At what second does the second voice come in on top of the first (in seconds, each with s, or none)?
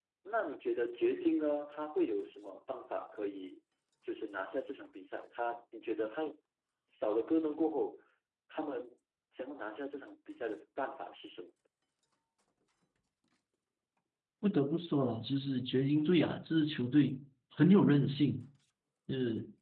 none